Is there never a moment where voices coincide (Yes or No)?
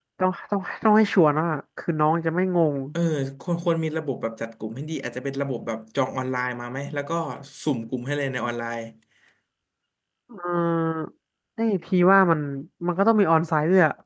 Yes